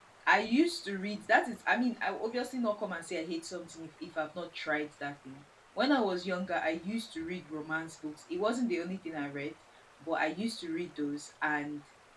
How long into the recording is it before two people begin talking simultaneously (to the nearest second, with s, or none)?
none